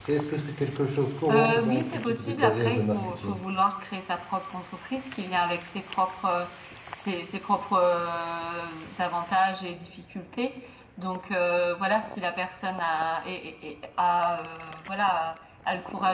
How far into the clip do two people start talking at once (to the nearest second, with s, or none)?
1 s